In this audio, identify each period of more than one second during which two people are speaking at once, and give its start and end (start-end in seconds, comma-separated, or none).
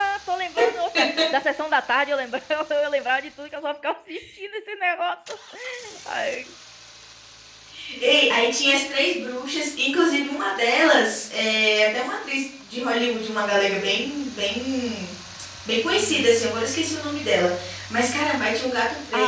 none